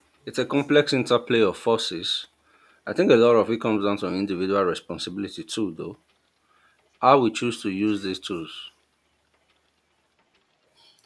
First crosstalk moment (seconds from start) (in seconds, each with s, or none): none